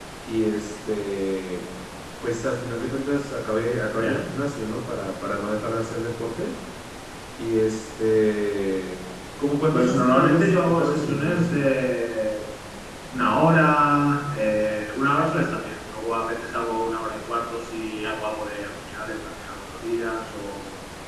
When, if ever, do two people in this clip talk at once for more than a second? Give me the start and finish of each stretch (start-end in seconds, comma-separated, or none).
9.7-11.6